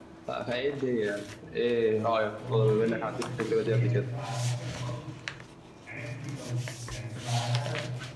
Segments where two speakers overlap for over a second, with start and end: 2.4-4.0

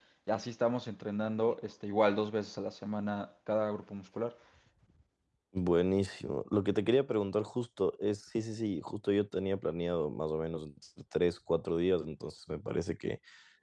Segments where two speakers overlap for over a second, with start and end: none

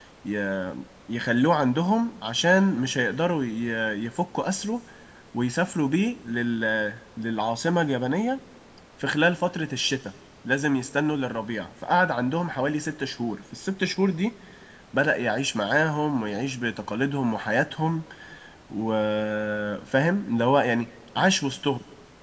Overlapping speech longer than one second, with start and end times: none

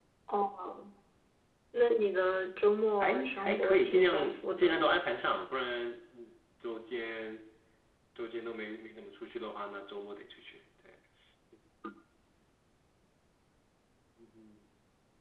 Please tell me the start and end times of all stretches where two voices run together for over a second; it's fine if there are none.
3.0-4.7

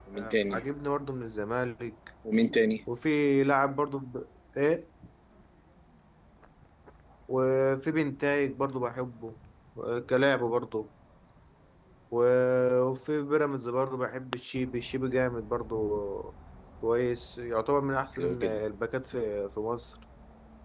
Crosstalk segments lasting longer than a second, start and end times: none

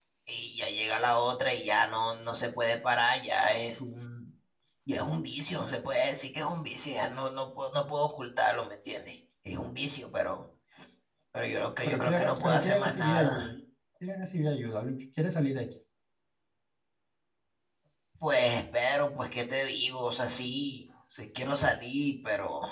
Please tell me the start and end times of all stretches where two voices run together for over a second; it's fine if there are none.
11.8-13.5

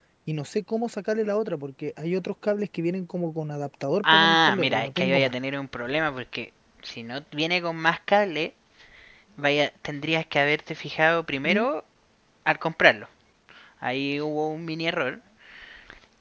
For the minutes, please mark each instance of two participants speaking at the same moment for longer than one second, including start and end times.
4.1-5.3

